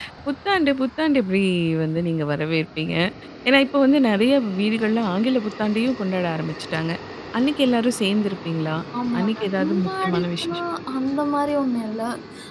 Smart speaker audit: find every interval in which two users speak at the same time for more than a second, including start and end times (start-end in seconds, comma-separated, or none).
9.2-10.6